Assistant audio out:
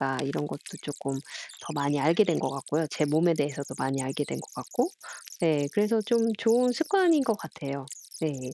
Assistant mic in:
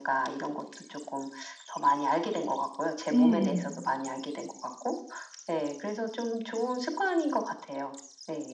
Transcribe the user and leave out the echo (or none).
음음.